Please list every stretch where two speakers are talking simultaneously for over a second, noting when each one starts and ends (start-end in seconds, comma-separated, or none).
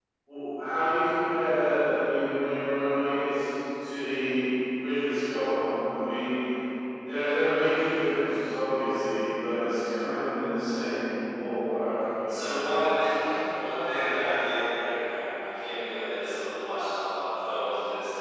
none